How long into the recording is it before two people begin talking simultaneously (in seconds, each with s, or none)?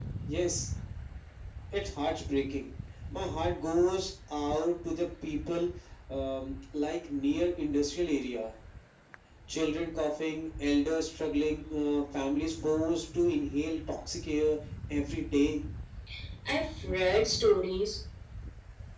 none